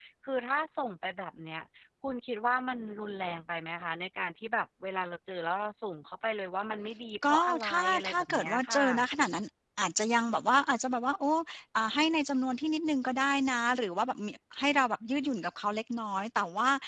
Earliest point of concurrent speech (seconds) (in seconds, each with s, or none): 7.2 s